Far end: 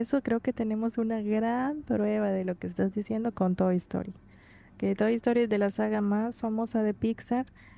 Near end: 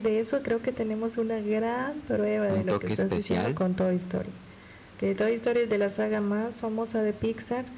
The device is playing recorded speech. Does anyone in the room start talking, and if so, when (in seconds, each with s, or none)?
2.5 s